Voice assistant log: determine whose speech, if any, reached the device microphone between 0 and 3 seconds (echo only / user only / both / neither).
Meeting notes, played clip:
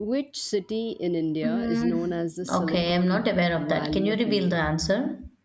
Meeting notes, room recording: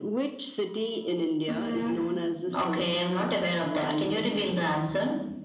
echo only